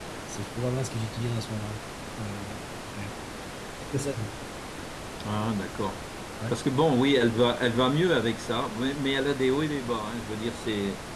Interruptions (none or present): none